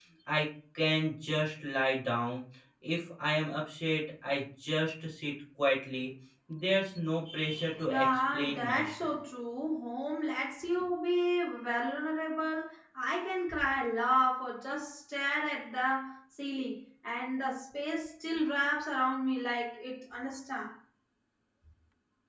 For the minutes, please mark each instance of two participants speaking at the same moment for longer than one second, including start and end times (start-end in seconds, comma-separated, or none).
7.9-9.2